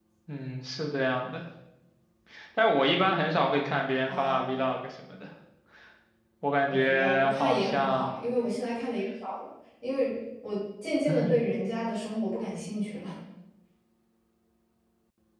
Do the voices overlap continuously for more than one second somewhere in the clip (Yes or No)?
Yes